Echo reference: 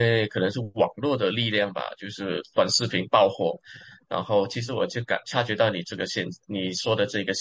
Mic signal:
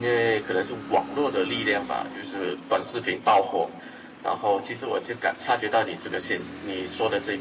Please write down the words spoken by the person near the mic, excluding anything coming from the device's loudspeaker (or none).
none